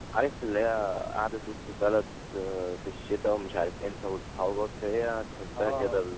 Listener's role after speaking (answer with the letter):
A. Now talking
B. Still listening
A